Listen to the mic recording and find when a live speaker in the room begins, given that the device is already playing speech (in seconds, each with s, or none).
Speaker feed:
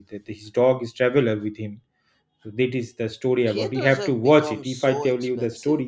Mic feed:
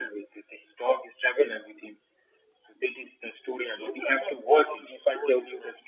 none